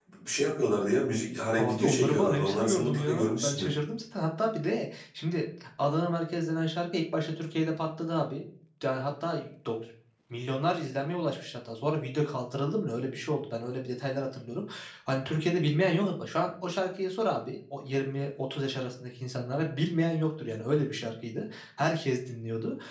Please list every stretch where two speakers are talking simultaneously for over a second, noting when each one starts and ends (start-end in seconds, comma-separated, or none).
1.6-3.7